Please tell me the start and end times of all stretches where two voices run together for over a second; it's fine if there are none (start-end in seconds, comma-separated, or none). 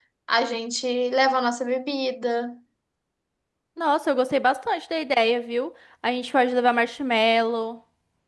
none